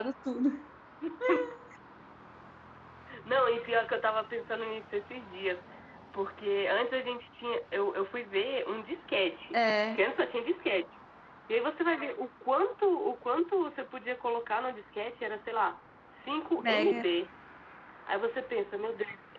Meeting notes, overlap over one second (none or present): none